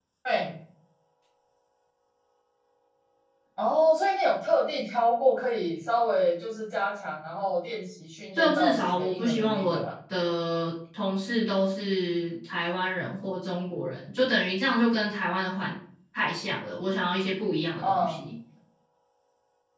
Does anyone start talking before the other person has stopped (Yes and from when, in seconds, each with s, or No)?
Yes, from 8.4 s